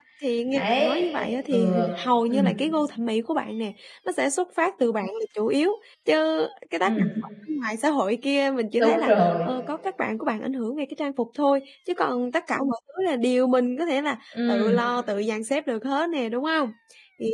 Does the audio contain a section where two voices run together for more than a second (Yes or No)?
Yes